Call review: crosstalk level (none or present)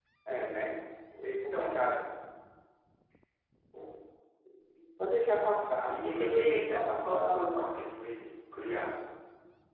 present